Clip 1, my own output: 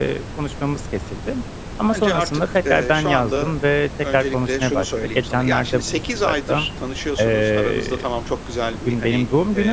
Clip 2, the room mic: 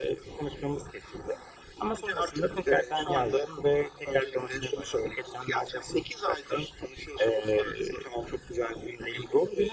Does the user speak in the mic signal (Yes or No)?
No